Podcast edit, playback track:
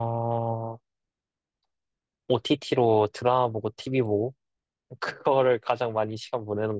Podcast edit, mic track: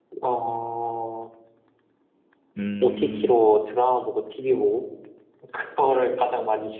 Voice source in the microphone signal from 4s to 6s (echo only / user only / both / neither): echo only